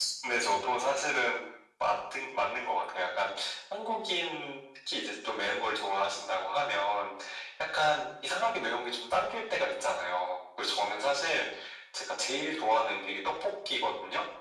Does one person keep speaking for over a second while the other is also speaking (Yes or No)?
No